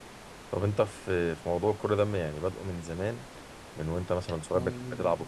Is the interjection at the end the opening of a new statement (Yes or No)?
No